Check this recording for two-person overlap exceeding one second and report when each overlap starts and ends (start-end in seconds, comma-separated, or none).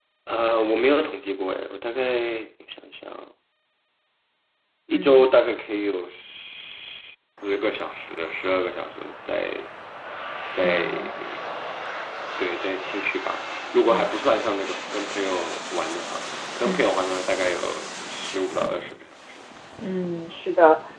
none